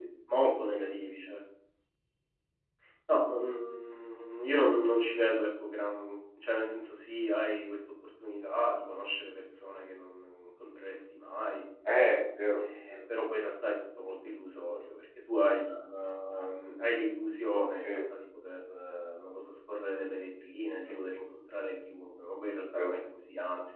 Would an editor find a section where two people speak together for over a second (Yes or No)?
No